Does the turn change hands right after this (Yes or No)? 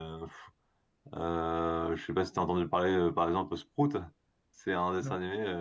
No